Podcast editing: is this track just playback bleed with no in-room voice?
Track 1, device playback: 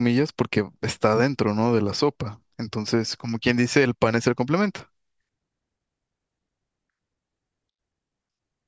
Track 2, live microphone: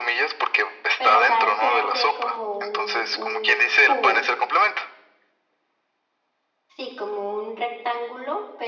No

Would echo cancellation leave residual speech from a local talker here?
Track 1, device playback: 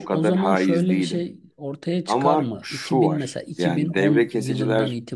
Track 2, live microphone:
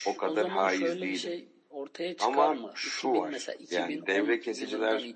No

